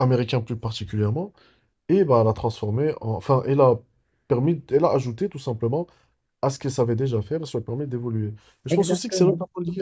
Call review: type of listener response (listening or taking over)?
listening